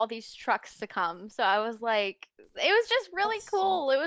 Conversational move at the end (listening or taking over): listening